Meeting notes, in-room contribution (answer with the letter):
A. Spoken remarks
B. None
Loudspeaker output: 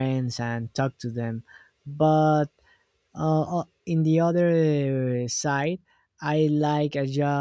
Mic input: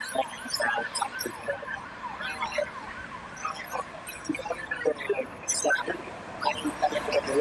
B